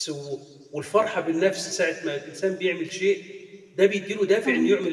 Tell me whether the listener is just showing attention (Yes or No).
Yes